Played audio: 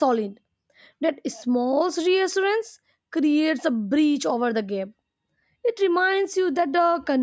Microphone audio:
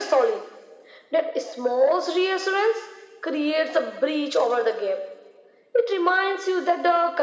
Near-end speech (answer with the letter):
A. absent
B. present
A